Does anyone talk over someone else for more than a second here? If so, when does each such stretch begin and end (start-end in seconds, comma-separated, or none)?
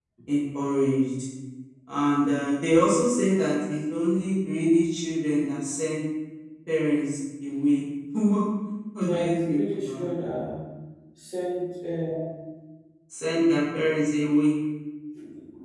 9.0-10.3